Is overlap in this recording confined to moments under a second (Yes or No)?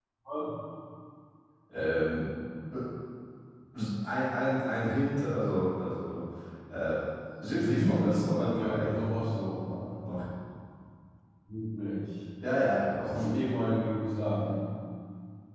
No